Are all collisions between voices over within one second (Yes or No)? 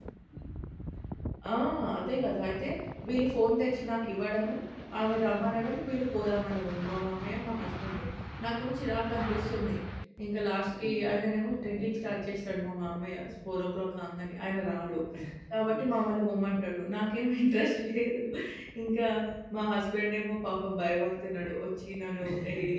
Yes